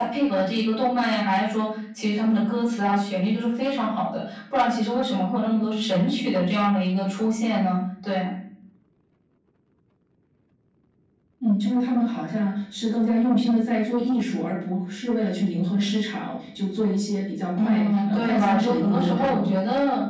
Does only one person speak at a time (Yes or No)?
No